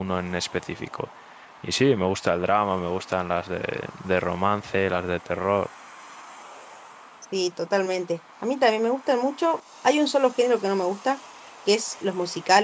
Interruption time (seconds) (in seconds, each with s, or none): none